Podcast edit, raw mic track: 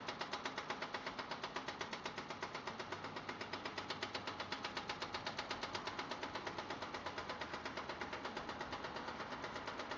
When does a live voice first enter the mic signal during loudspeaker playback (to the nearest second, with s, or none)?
none